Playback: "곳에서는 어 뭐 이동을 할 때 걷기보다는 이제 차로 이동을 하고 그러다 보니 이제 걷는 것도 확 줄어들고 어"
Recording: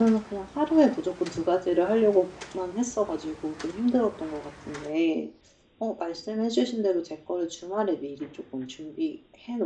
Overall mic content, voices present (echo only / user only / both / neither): user only